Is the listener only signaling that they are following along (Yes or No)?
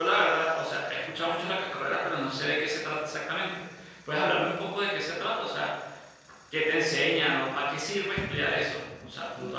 No